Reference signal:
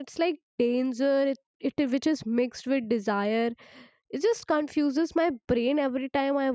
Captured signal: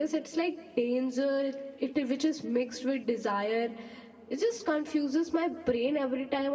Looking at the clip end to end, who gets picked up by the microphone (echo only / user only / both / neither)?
echo only